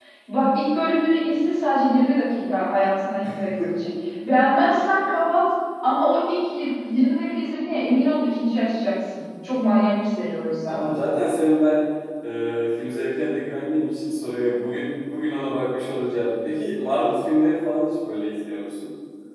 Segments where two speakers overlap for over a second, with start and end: none

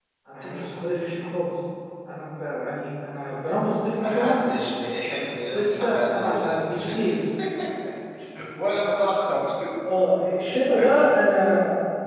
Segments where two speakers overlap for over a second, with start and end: 5.5-7.1

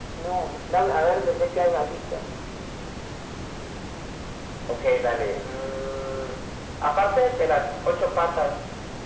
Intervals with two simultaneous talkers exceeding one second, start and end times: none

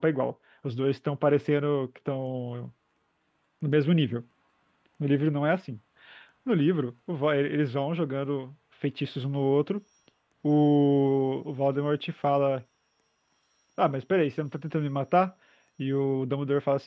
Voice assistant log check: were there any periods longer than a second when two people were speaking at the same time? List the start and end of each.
none

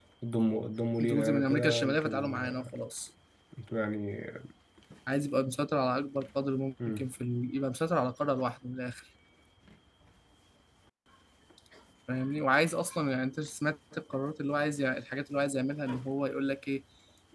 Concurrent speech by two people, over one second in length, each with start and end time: 1.0-2.4

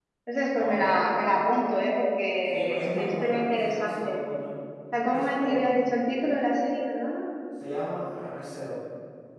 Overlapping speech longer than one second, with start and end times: 2.5-4.2

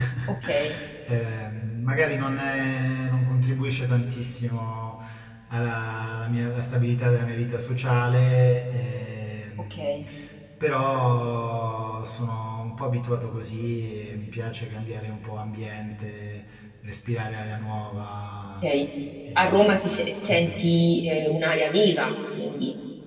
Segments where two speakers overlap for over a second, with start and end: none

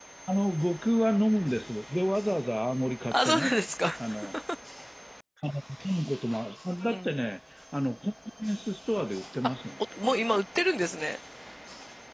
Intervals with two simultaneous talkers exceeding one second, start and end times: none

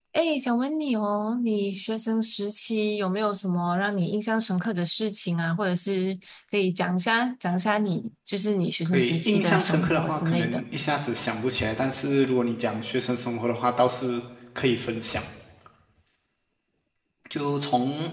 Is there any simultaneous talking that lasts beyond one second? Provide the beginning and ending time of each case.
8.8-10.6

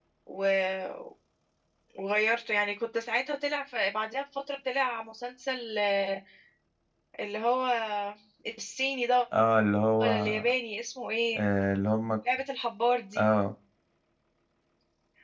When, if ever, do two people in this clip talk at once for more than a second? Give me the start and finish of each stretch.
none

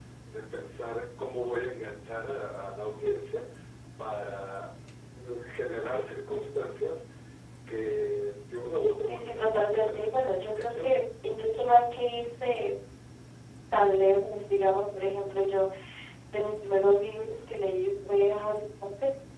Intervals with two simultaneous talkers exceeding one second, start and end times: 9.1-11.0

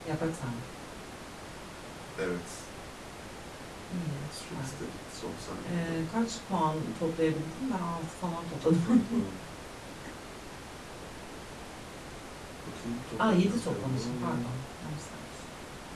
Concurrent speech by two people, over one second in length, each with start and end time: 13.2-14.5

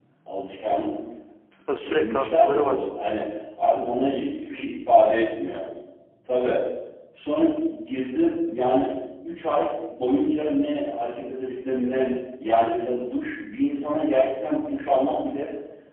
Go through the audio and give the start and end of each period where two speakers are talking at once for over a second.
1.8-3.1

